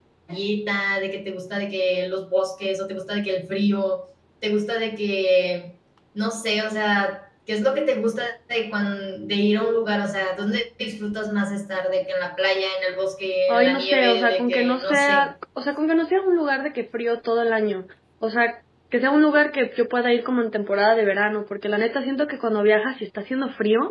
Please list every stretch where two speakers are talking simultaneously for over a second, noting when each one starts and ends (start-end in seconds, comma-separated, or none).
13.5-15.3